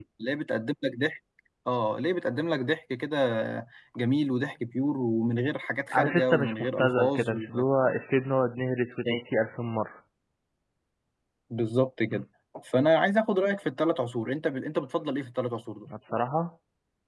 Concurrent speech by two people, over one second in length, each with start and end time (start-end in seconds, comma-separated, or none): 5.9-7.6